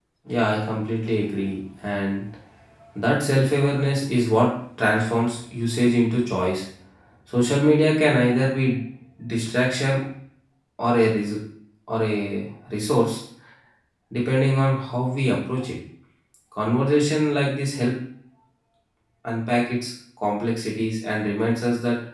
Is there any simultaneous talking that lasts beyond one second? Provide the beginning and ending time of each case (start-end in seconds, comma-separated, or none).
none